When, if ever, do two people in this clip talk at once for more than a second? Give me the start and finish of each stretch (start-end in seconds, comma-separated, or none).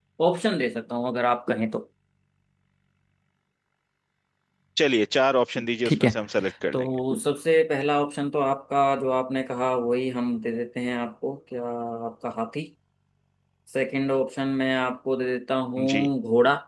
none